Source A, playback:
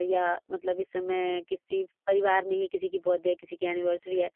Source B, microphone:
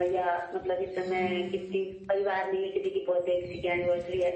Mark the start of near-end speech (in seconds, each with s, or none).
1.1 s